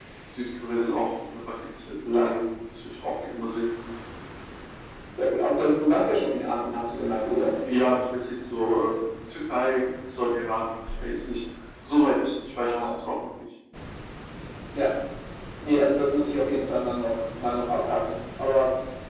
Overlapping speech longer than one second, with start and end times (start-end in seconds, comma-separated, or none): none